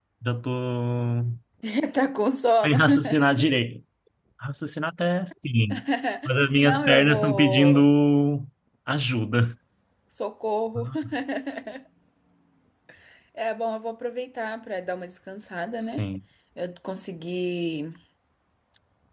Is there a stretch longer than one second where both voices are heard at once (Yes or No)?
Yes